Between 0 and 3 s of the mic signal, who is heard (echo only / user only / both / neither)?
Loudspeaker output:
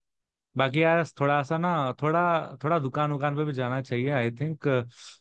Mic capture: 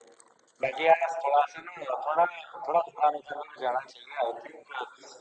echo only